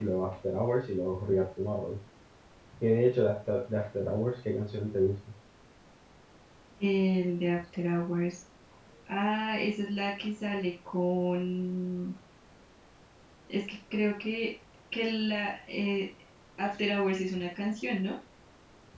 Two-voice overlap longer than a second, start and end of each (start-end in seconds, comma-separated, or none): none